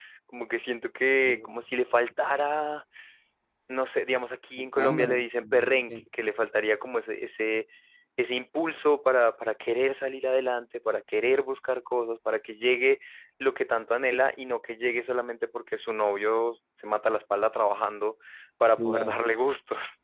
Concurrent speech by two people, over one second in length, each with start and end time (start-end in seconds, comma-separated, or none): 4.8-6.0